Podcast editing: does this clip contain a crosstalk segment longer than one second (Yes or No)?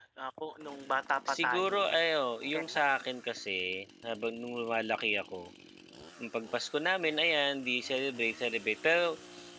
No